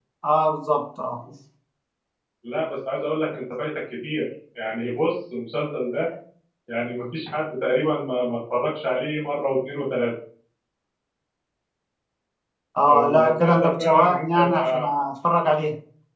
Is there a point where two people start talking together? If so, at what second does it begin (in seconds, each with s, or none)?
12.9 s